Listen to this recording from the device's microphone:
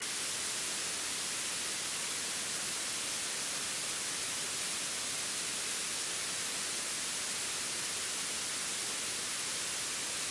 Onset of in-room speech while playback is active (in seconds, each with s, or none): none